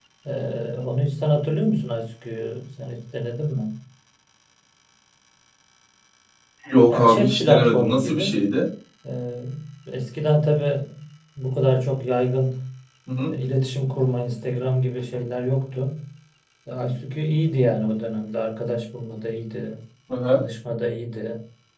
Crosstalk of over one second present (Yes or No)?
Yes